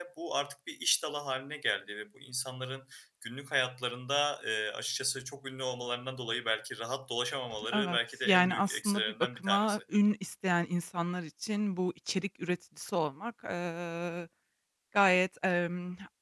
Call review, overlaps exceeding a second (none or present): present